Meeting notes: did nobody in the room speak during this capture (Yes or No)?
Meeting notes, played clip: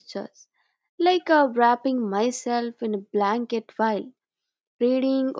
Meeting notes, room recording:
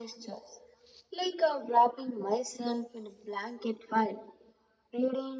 Yes